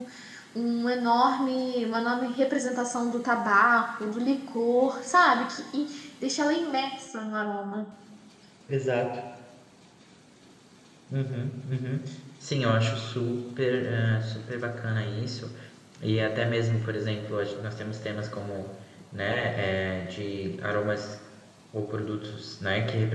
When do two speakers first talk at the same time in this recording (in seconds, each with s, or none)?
none